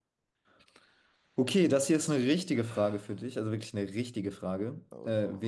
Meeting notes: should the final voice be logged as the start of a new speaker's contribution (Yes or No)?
No